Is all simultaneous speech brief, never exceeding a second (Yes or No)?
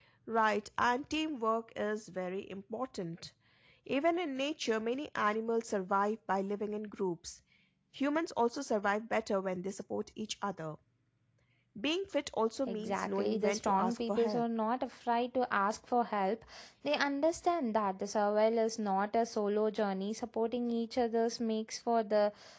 No